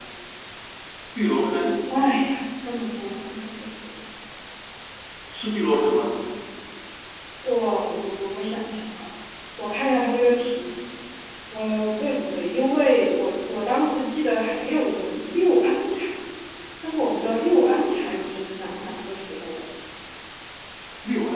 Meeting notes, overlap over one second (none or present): none